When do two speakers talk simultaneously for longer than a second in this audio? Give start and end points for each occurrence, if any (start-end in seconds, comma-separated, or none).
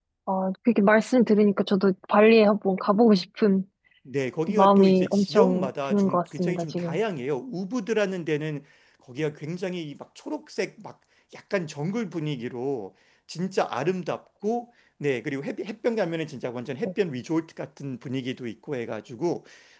4.5-7.0